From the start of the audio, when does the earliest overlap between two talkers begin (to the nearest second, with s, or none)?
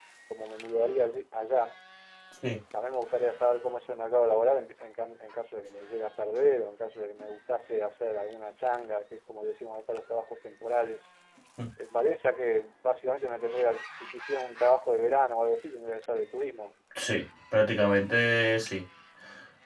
none